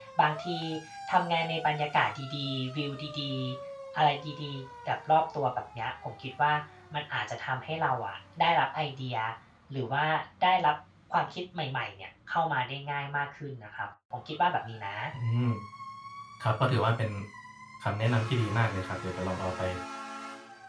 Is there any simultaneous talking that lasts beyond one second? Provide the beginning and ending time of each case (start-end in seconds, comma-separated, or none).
none